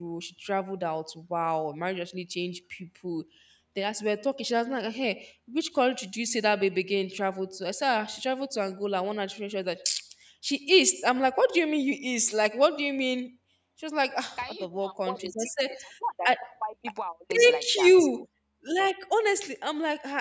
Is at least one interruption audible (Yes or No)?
Yes